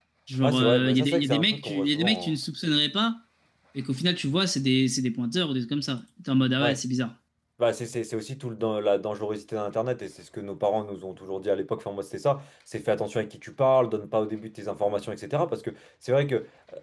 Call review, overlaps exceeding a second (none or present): present